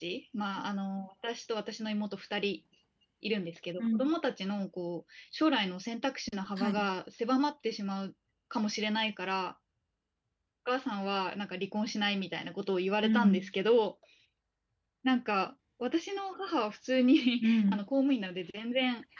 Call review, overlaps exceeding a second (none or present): none